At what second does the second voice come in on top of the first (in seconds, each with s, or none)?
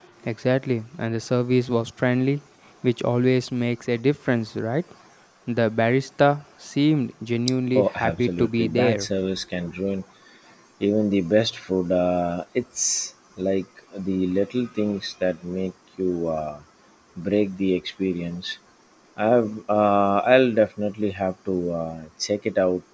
7.8 s